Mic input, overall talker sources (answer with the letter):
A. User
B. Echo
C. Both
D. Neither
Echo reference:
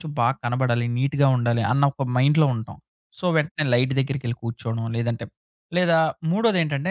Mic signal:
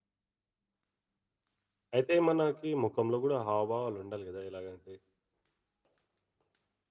A